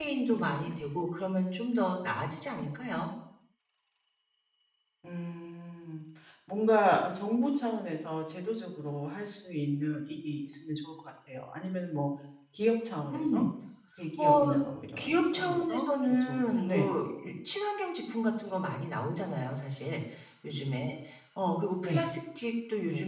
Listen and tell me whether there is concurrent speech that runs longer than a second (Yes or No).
Yes